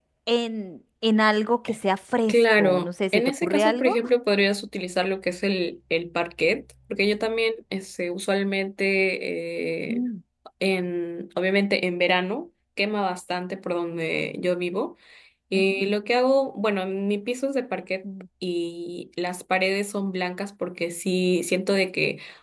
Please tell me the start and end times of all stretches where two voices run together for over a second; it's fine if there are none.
2.3-3.9

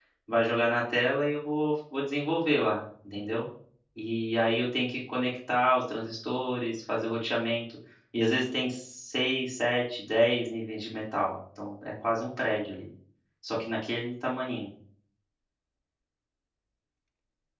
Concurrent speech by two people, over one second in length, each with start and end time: none

